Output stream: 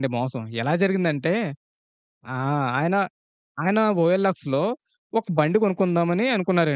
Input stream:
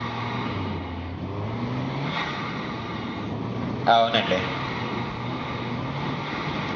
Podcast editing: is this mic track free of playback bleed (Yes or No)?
Yes